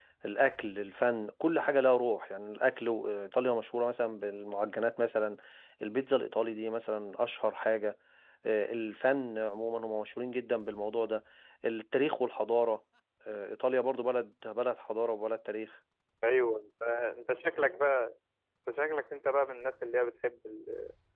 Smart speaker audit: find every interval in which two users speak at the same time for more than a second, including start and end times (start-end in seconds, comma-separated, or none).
none